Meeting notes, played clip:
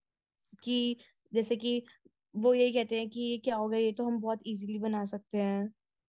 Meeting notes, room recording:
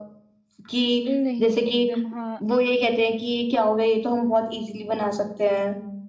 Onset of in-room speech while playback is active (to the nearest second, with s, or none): 1 s